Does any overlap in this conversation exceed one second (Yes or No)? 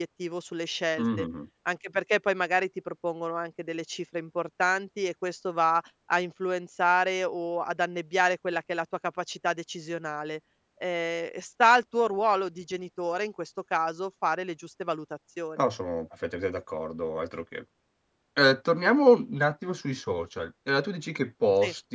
No